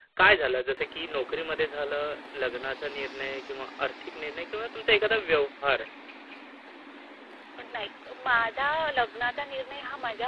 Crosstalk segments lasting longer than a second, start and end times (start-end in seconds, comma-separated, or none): none